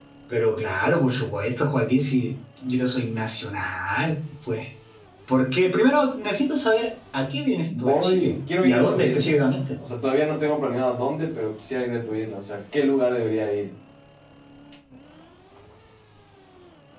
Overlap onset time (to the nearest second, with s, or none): 8 s